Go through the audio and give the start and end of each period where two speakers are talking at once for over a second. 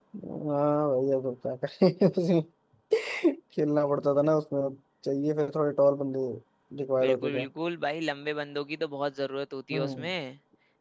none

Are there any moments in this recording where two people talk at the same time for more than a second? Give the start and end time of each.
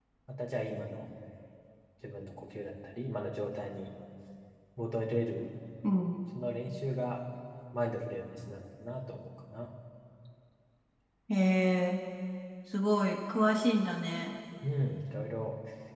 none

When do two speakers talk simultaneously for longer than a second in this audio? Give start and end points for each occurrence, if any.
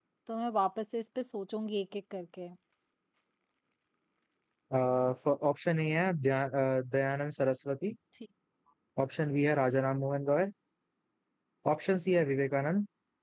none

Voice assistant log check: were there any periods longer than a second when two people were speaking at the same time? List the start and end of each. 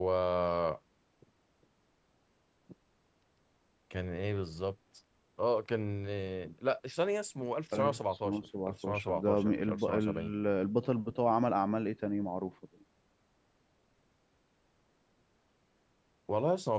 7.7-10.3

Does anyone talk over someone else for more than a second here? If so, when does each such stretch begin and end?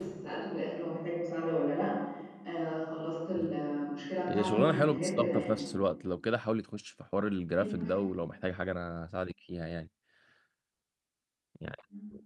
4.3-5.6

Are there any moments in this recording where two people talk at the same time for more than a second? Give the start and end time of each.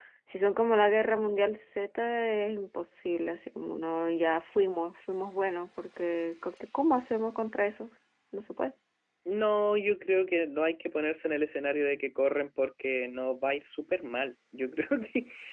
none

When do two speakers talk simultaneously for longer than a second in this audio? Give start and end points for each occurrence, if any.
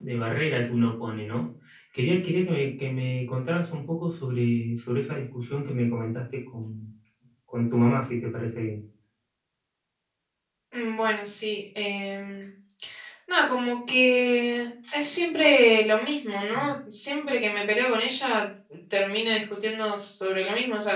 none

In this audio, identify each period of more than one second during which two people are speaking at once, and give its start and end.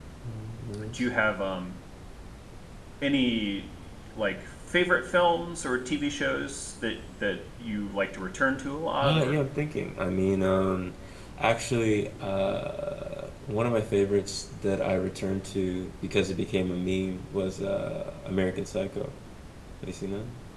none

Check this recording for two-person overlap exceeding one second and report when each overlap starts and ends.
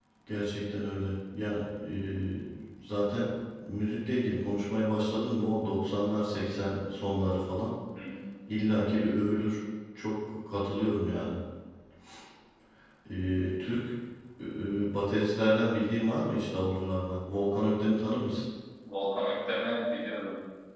none

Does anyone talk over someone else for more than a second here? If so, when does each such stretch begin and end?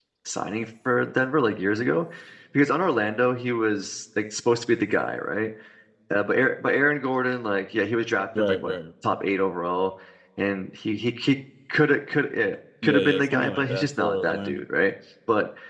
12.8-14.6

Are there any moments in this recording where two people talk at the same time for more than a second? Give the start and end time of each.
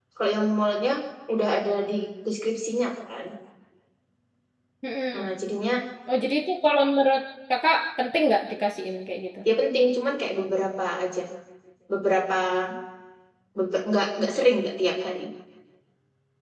none

